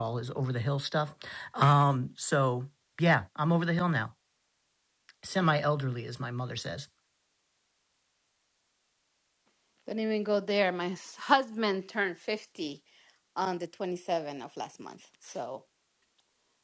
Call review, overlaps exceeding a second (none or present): none